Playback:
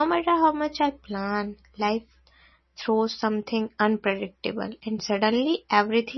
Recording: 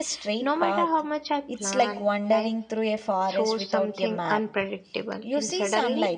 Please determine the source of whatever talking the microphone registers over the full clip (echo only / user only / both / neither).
both